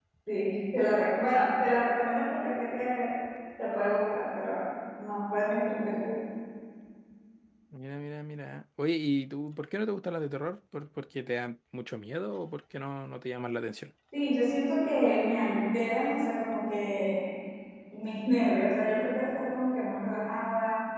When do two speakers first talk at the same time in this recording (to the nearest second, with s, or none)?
none